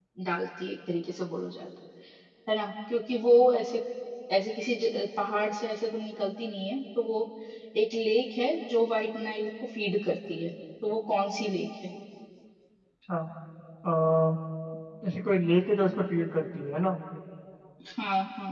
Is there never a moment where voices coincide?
Yes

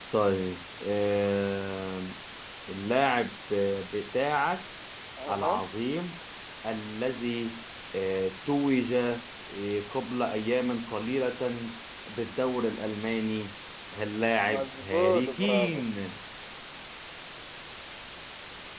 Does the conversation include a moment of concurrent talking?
Yes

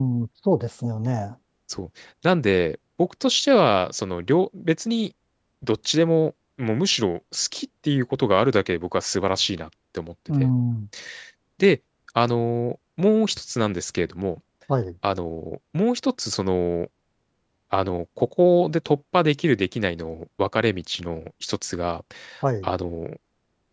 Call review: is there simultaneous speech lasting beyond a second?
No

